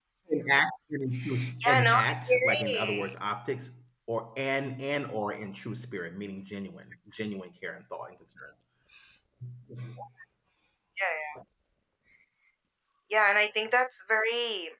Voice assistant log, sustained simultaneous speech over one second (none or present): present